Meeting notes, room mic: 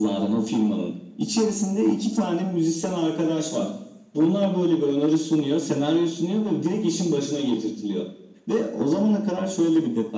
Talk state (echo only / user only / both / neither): echo only